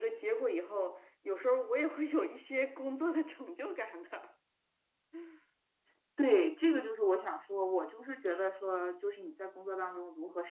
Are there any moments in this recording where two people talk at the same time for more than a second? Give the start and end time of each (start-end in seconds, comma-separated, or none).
none